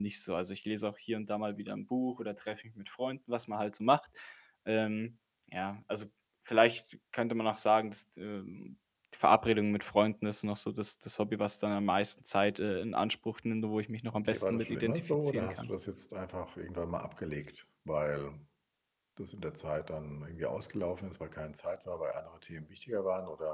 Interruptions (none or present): present